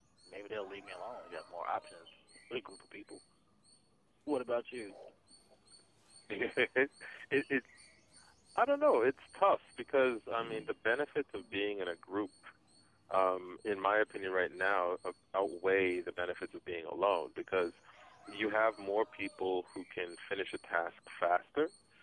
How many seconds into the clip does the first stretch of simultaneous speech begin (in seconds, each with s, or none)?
none